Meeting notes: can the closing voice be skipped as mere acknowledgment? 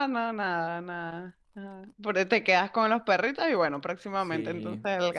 No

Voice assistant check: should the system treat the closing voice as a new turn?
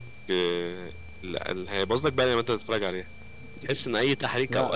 No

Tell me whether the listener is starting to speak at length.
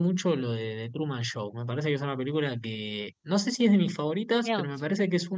No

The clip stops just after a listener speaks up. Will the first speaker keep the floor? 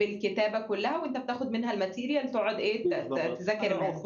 No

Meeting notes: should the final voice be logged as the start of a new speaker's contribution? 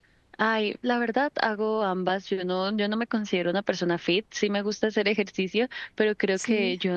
No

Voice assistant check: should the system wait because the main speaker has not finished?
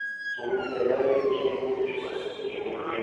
Yes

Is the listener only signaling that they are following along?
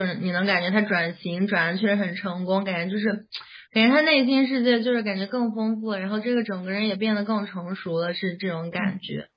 No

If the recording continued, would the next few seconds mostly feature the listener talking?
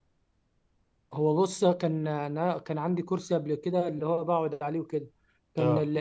No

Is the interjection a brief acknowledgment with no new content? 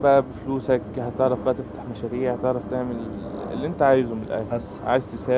Yes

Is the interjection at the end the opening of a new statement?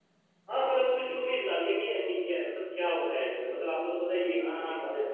Yes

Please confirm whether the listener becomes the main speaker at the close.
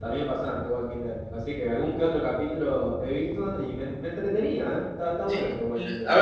Yes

